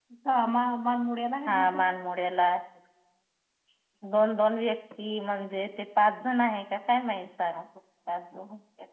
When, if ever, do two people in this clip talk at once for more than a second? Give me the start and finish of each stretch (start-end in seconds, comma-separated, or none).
none